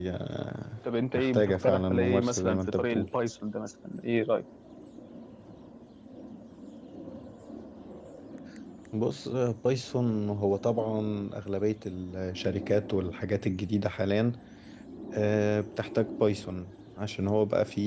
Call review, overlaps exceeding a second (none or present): present